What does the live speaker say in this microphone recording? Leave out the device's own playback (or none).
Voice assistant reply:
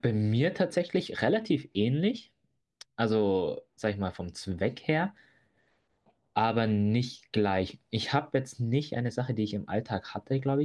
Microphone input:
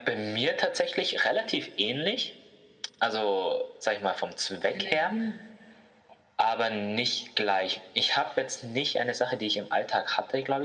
Energien